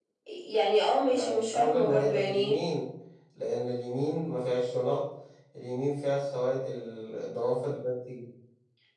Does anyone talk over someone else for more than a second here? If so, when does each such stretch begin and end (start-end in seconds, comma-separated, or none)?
1.1-2.6